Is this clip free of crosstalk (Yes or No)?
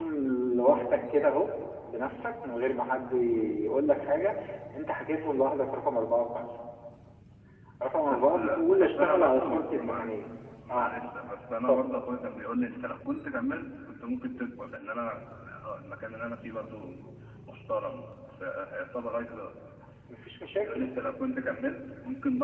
No